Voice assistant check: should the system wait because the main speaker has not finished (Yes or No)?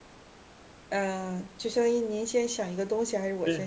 No